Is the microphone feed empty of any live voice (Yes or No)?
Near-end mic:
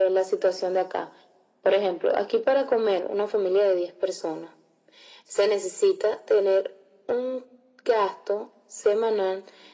Yes